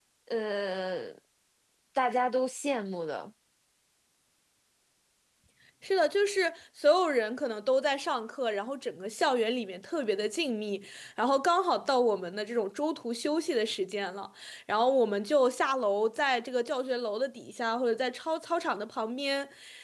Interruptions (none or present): none